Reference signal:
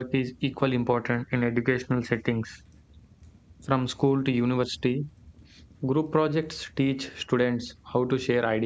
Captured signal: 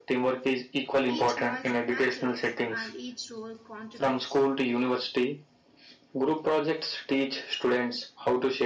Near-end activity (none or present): present